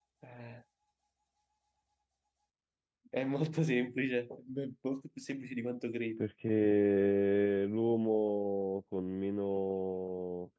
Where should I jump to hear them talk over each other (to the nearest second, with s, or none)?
none